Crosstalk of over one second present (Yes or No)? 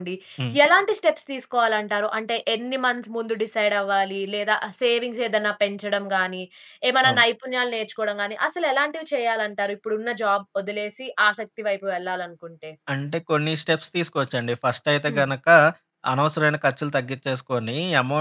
No